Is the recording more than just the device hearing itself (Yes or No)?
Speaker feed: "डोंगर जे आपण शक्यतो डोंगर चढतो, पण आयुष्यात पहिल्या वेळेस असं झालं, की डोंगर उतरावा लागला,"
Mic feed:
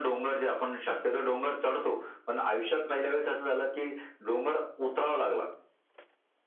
No